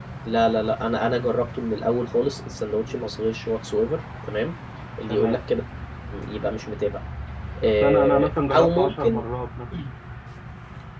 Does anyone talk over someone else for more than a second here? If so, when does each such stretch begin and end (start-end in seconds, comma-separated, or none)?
7.6-9.2